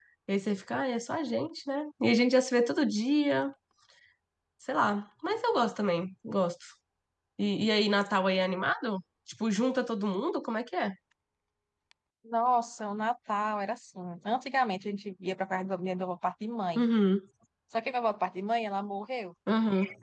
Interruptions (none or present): none